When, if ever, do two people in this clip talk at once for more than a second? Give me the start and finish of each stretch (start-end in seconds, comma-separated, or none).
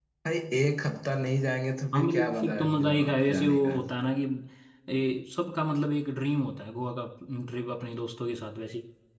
1.9-3.8